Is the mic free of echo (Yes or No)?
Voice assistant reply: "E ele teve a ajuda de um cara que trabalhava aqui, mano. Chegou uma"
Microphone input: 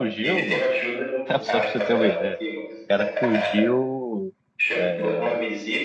No